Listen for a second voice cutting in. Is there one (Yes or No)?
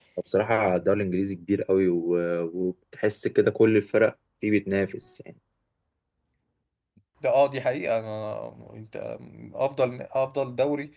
No